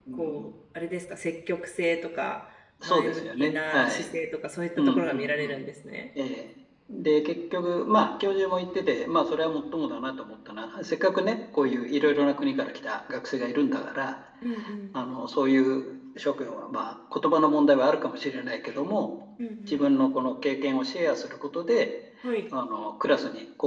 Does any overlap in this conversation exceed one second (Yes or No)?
Yes